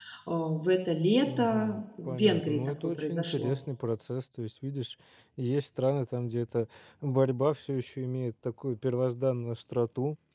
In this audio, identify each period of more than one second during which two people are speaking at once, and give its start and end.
1.2-3.6

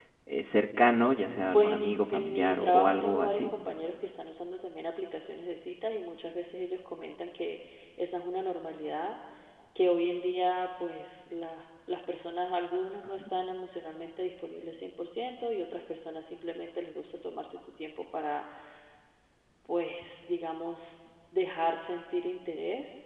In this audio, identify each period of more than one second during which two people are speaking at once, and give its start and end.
1.5-3.4

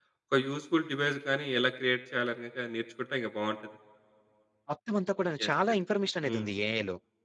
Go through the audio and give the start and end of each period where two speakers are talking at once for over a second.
none

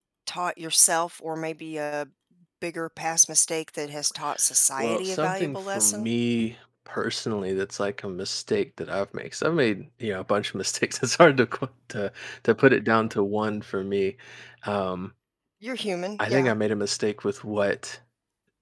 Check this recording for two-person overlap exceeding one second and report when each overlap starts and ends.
4.8-6.1

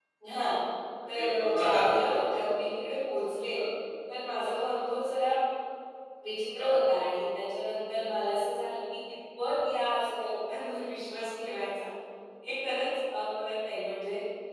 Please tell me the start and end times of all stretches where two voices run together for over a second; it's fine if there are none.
1.1-2.5

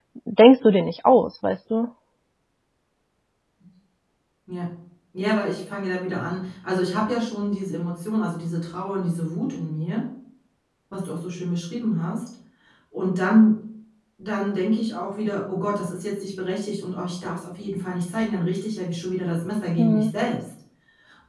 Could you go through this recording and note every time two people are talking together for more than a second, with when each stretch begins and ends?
none

